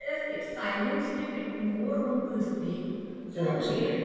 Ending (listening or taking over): listening